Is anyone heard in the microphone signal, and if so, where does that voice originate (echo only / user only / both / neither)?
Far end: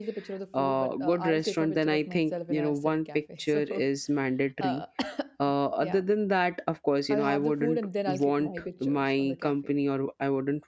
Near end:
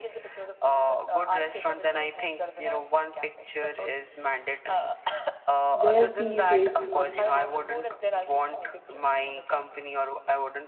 both